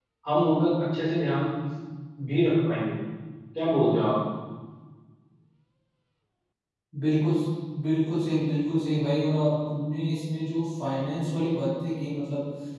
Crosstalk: none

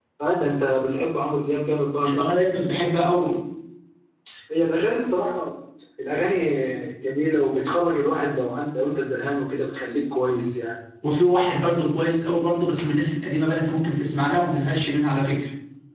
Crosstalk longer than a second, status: none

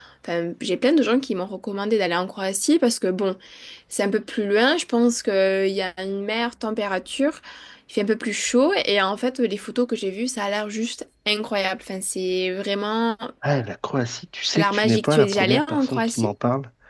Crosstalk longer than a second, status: present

